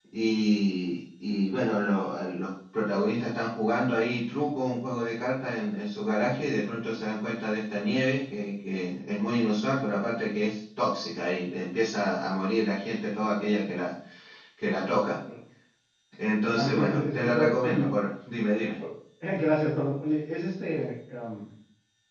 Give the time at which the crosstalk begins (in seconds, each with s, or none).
16.6 s